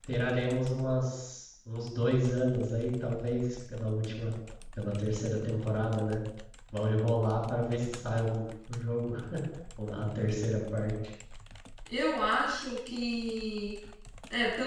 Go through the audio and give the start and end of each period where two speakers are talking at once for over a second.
none

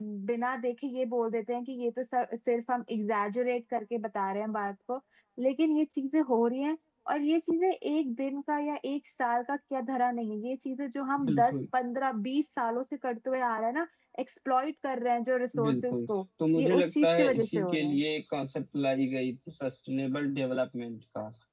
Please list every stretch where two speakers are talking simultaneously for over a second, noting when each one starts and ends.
16.6-18.0

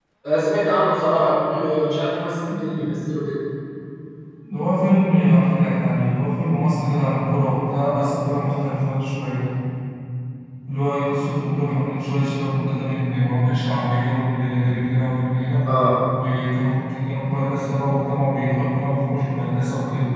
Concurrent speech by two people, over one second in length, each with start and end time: none

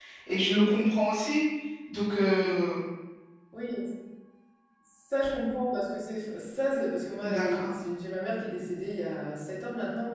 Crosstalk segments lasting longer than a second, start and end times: none

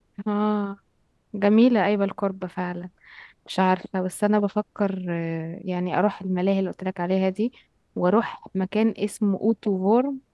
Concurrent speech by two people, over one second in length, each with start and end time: none

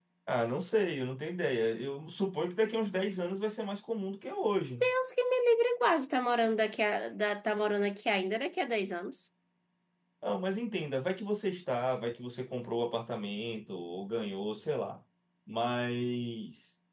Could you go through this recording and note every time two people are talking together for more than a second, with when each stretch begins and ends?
none

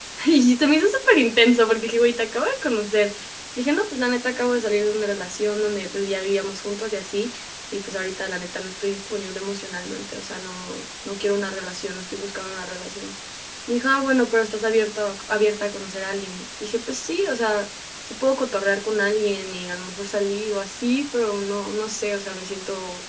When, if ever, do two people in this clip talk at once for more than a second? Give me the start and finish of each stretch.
none

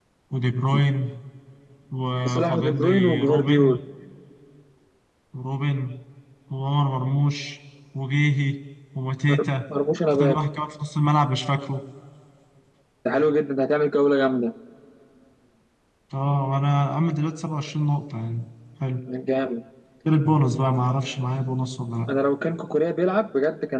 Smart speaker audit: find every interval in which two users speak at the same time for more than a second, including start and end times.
2.3-3.8

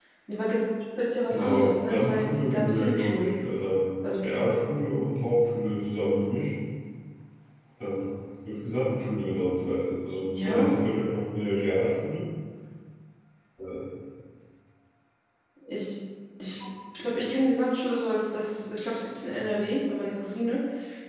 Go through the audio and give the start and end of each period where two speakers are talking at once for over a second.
1.3-3.3

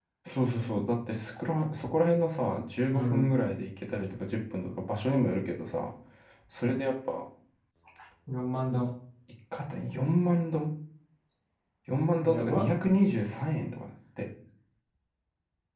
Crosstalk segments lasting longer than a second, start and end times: none

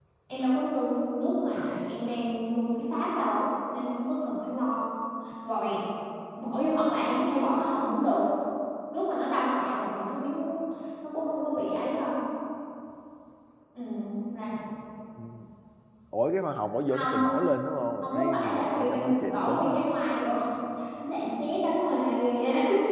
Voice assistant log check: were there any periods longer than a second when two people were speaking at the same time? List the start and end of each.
18.0-19.8

